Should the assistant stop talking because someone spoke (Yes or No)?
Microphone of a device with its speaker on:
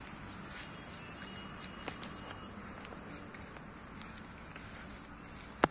No